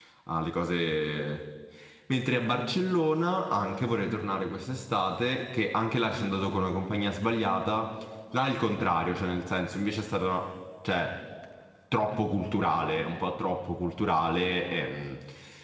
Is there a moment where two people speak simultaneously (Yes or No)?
No